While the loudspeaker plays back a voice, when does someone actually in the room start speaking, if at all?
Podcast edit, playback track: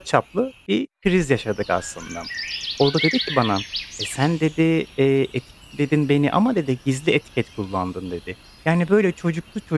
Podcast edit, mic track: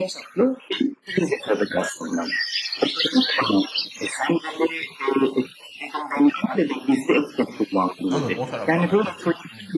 8 s

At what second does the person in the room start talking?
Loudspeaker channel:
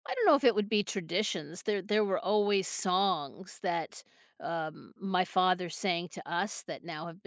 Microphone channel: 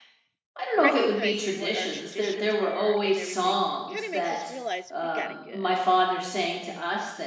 1 s

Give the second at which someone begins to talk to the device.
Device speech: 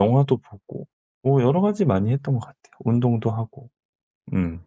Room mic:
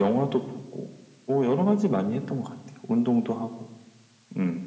none

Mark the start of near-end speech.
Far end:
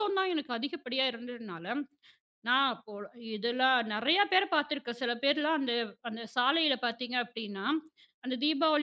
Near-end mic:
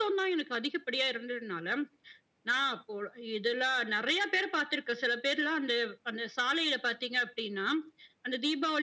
none

